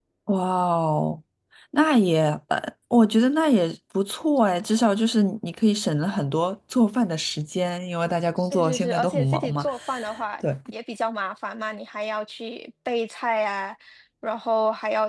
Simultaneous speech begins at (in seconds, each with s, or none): 8.4 s